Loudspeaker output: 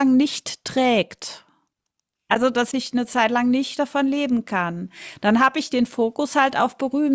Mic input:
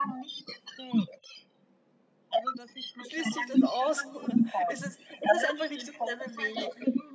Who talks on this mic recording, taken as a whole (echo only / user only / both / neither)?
both